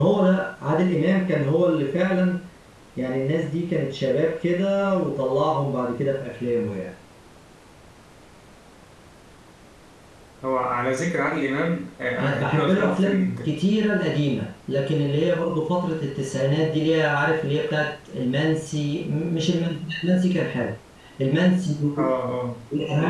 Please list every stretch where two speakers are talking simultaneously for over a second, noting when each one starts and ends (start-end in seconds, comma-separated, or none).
12.2-13.5